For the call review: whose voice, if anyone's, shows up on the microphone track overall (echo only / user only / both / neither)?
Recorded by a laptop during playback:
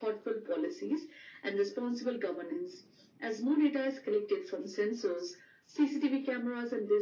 echo only